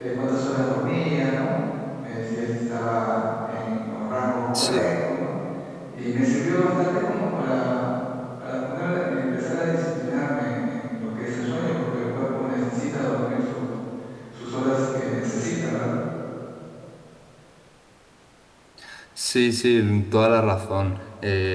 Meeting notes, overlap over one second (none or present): none